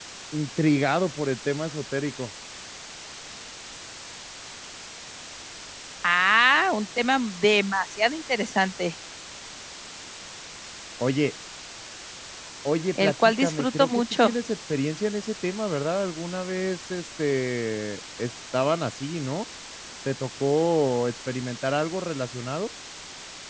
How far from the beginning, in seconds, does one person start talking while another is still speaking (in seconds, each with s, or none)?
12.9 s